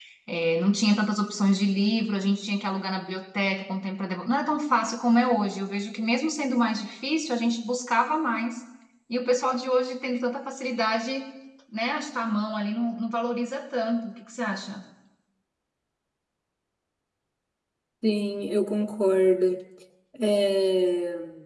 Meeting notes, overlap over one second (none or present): none